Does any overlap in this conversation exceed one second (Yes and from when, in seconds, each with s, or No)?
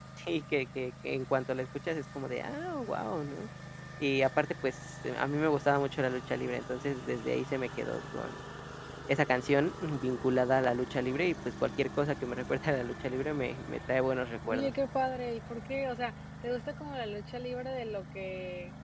No